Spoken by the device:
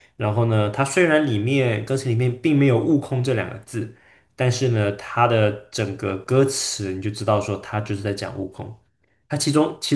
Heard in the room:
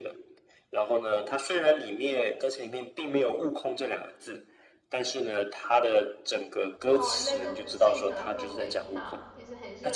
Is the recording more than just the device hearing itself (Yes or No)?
Yes